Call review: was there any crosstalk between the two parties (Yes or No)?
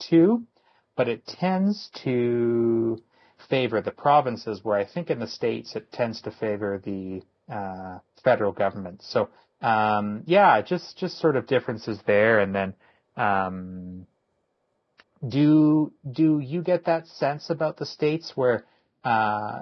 No